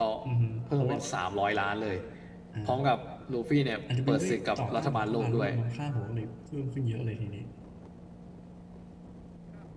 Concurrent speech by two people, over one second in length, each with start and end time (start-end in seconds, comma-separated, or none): 4.1-5.5